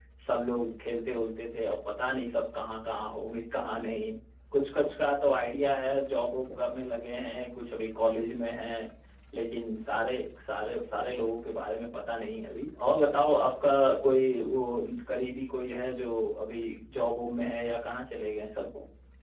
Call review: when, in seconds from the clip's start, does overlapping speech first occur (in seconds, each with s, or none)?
none